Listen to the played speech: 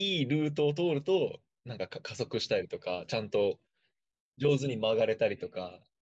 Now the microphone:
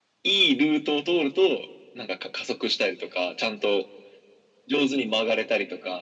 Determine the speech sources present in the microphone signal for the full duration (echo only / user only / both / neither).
echo only